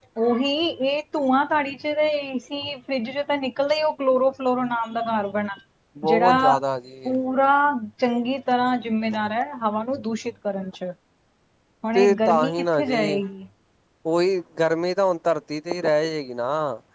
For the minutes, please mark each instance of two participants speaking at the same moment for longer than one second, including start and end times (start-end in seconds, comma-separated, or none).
11.9-13.2